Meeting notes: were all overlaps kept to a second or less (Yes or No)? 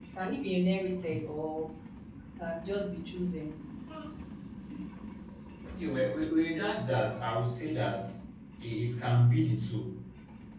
Yes